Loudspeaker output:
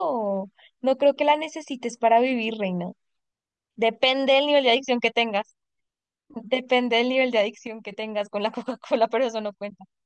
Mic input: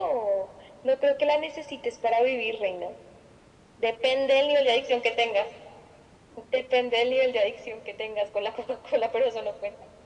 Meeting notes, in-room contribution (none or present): none